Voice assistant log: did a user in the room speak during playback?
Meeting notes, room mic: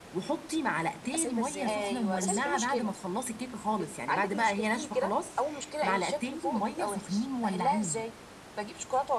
Yes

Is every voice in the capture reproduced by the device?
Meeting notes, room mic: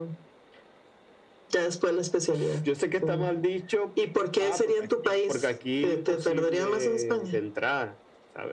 Yes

